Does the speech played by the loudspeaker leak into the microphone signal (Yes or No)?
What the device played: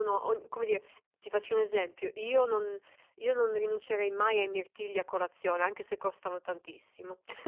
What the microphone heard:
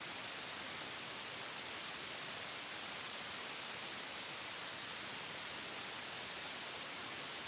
No